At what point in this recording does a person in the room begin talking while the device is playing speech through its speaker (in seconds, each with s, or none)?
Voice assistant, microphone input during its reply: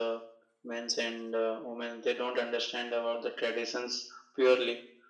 none